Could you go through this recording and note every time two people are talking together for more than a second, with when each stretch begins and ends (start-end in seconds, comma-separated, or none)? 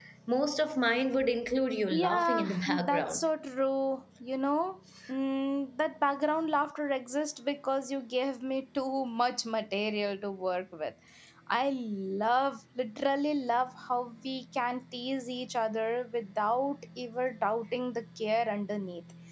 1.9-3.2